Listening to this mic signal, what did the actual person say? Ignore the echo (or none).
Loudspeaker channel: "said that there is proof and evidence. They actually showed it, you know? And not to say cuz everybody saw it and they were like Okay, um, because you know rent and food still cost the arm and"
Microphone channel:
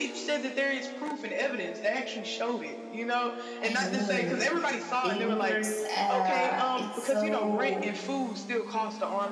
I mean, the universe uh, it's so